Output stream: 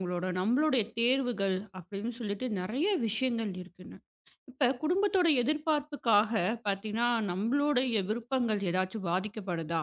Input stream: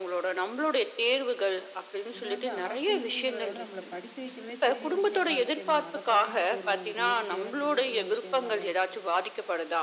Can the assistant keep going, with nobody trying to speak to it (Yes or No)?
No